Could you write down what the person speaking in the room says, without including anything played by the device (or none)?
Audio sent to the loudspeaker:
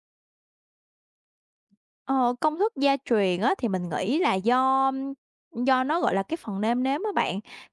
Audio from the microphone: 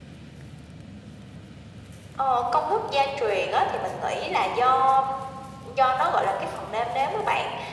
none